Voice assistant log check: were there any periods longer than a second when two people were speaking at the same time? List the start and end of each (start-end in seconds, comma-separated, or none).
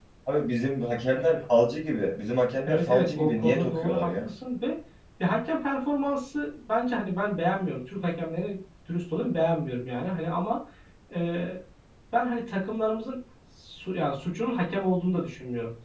2.6-4.3